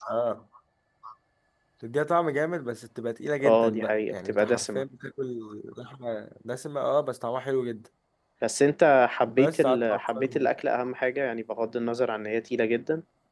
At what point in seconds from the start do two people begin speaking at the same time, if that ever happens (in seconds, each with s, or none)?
3.4 s